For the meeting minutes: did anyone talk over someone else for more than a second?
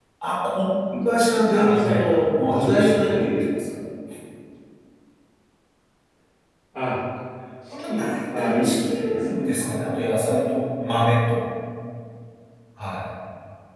Yes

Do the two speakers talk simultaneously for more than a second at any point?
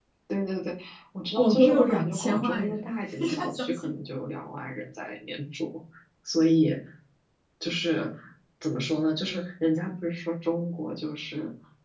Yes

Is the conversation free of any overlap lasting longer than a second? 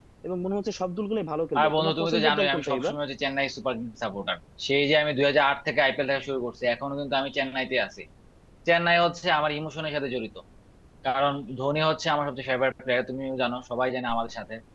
No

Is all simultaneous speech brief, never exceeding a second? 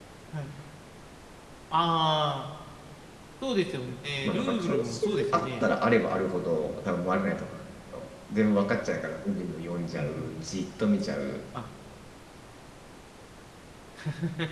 No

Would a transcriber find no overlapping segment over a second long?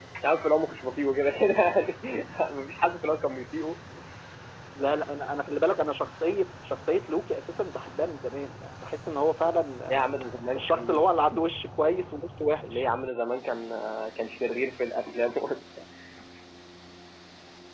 Yes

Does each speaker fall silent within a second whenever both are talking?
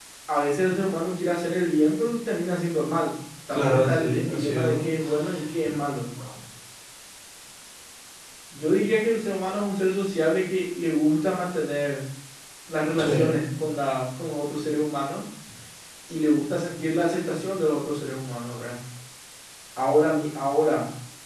No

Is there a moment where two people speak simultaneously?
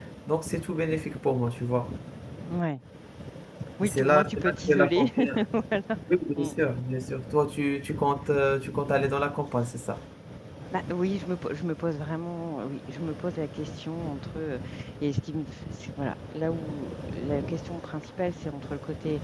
Yes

